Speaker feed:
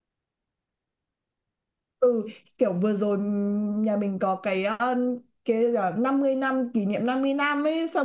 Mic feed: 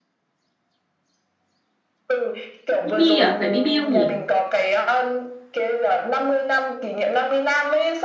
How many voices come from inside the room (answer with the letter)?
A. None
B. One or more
B